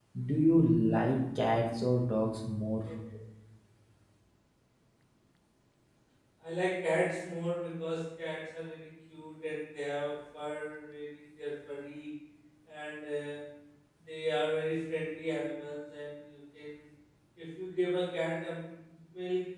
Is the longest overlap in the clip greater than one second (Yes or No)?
No